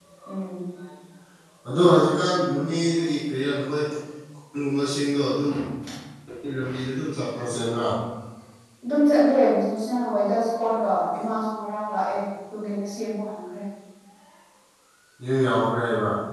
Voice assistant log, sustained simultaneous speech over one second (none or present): none